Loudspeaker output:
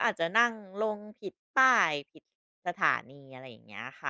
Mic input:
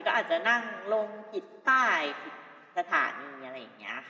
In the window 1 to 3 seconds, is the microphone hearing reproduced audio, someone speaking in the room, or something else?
echo only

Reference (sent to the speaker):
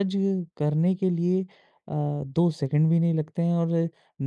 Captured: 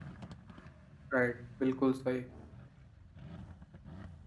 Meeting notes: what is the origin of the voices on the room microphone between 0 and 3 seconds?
user only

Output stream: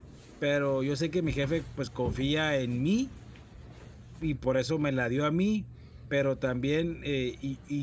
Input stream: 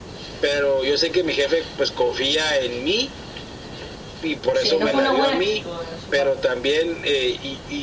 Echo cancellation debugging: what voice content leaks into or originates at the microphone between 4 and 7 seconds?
both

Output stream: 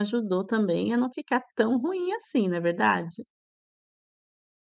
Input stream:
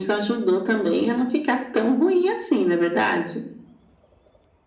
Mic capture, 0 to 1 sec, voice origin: echo only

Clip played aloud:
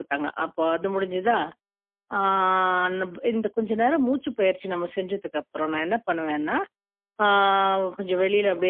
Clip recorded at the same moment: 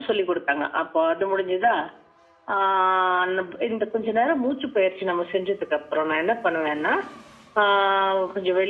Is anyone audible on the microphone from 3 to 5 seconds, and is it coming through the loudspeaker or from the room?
echo only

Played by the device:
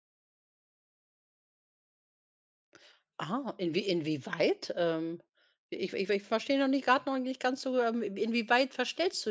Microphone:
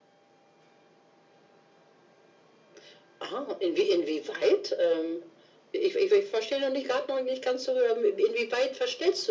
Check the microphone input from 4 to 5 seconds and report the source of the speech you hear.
echo only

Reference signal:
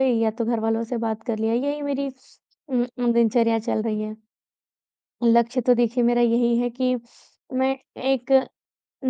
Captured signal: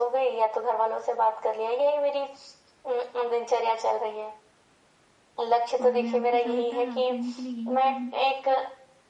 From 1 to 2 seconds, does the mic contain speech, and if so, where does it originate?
echo only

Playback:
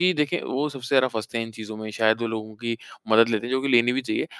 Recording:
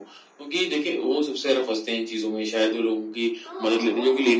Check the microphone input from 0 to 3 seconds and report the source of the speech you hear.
echo only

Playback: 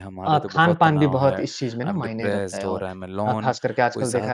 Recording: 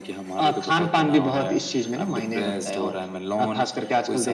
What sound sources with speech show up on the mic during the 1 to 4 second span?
echo only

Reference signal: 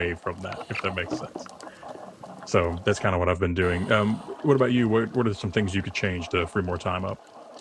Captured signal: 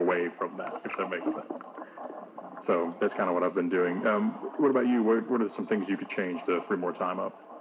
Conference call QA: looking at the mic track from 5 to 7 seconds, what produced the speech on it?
echo only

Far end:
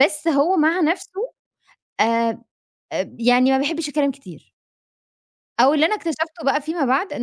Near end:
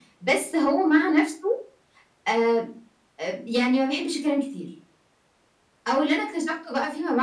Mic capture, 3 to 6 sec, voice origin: echo only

